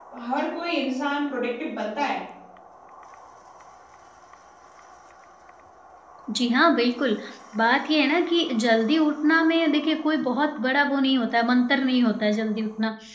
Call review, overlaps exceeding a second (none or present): none